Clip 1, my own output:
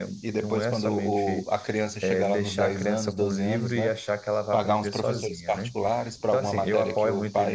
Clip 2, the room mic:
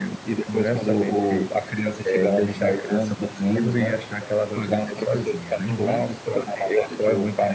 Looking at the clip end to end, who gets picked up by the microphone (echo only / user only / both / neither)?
both